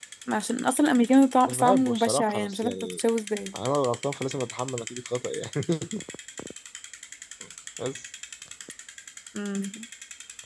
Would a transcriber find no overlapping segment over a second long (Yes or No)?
No